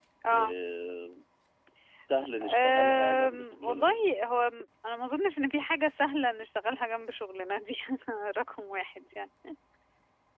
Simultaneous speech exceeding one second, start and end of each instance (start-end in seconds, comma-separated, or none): 2.4-4.0